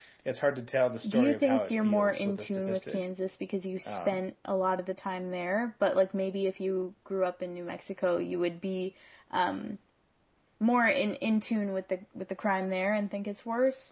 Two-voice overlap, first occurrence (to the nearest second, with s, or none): 1 s